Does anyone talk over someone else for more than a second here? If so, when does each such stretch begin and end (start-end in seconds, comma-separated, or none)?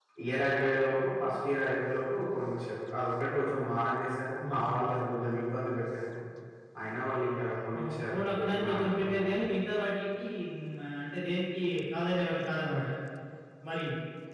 7.8-9.2